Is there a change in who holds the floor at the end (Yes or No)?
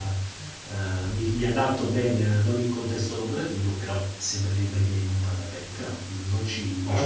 Yes